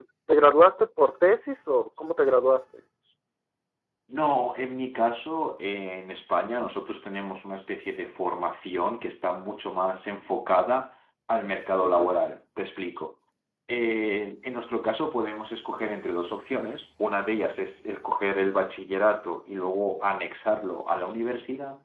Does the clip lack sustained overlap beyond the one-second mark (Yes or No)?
Yes